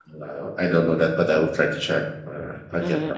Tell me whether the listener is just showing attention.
No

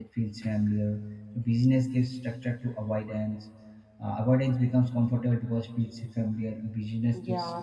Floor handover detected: Yes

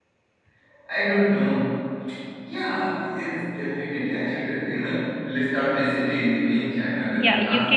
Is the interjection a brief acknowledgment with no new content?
No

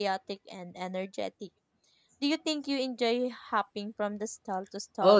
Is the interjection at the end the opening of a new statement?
Yes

